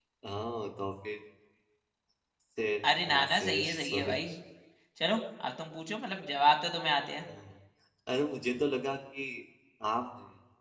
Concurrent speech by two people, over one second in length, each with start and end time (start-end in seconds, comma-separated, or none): 2.9-4.2